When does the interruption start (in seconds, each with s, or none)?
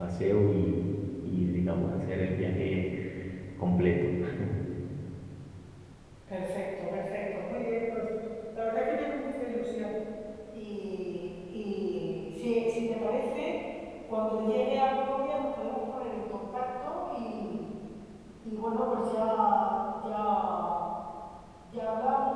none